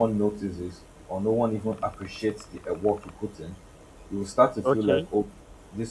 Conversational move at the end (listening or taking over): listening